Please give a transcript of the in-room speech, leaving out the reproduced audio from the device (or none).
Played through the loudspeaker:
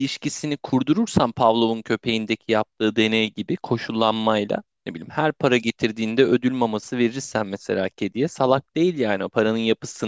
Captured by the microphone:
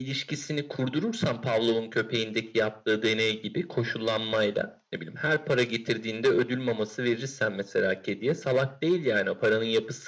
none